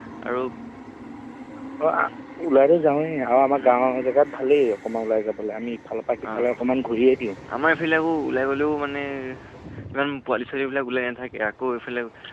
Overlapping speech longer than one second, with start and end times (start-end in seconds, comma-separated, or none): none